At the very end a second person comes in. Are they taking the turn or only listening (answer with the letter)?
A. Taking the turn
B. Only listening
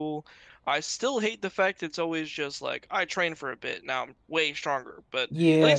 A